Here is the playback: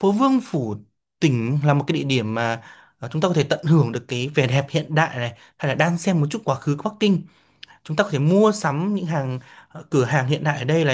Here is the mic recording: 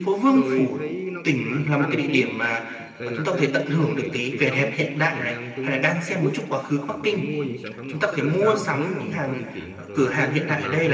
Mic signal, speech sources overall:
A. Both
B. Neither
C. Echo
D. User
A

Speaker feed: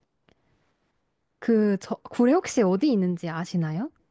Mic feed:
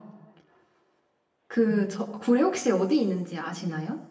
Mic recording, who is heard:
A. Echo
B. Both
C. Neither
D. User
B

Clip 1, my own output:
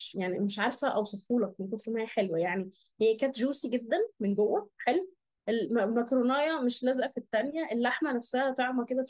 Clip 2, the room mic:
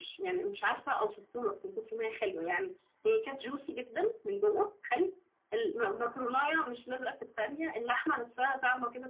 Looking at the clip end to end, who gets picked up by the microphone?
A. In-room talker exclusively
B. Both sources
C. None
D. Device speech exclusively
D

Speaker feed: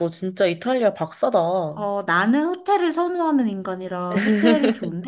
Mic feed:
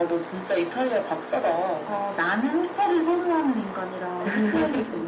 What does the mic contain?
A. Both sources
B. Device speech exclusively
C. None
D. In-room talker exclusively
B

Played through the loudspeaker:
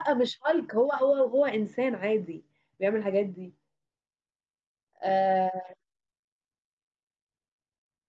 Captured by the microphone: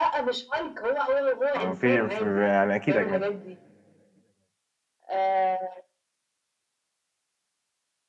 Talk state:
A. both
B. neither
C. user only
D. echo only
A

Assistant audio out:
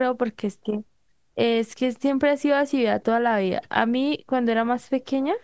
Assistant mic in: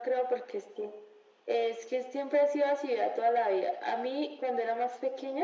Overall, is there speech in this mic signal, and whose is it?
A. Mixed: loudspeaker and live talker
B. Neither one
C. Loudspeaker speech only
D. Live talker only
C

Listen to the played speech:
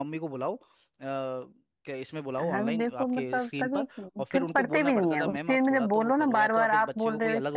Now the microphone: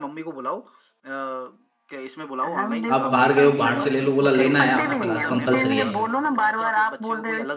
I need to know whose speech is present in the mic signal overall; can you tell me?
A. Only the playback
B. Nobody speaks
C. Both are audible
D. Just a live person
C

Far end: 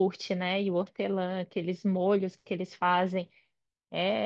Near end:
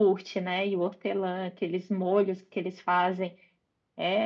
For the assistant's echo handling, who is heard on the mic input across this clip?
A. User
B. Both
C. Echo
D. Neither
C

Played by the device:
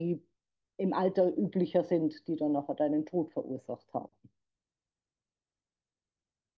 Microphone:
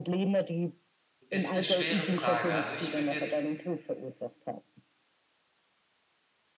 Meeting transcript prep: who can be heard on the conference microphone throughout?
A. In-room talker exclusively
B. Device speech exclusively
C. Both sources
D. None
C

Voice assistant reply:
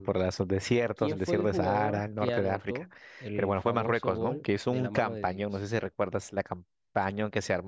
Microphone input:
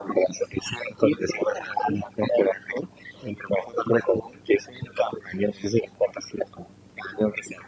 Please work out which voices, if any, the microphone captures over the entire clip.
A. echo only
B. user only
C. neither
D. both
A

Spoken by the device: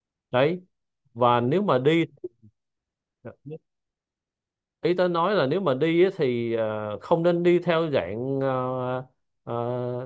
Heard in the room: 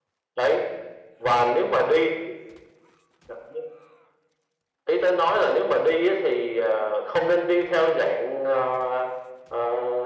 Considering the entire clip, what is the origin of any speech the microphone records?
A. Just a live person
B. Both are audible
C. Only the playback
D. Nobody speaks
C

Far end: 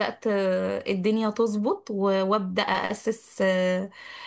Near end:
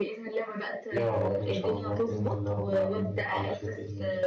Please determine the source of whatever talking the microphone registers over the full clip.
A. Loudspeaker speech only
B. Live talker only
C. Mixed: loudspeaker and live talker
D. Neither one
C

